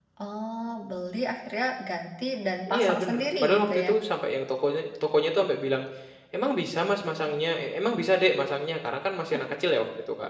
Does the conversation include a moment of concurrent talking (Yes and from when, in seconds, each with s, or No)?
Yes, from 2.7 s